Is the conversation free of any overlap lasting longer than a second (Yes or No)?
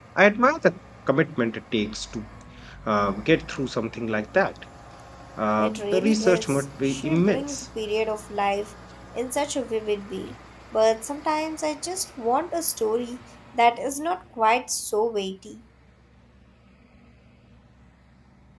No